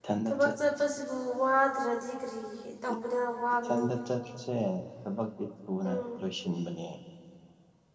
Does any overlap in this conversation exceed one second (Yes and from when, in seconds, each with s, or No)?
No